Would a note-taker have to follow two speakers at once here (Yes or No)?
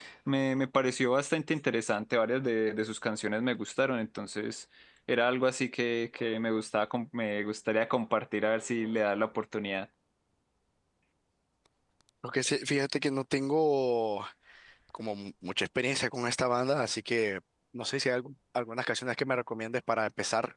No